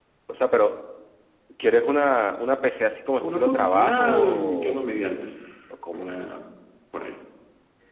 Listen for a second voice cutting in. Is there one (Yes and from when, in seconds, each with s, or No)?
Yes, from 3.2 s